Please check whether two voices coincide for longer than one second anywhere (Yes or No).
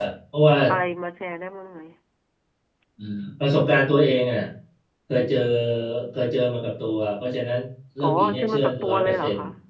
Yes